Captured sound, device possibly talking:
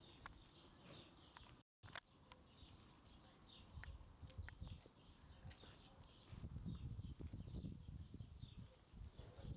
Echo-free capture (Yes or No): Yes